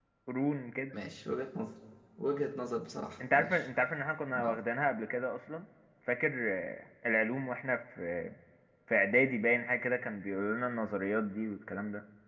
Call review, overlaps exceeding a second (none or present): none